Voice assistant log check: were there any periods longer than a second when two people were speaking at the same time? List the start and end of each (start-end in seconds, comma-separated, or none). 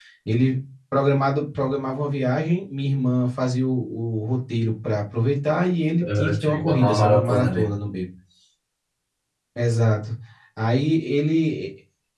6.0-7.7